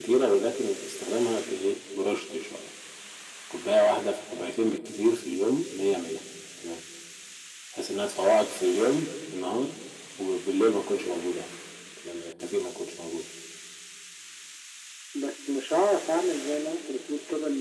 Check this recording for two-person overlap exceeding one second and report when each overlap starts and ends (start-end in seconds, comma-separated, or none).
none